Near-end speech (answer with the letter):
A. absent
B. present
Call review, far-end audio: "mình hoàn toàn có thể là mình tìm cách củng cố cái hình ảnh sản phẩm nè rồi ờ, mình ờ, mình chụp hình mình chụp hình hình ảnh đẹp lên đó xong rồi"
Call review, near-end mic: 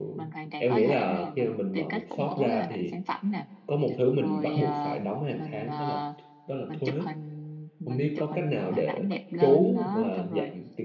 B